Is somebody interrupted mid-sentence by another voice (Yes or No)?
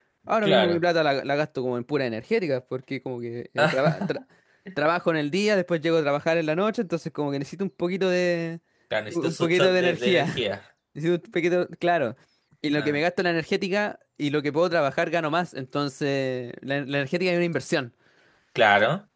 Yes